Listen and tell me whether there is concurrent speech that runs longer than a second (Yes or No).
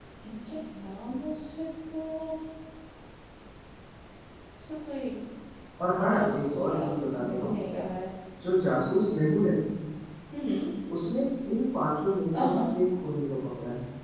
Yes